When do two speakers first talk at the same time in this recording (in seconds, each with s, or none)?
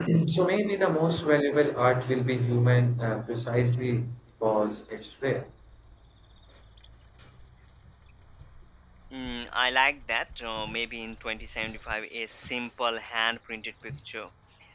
none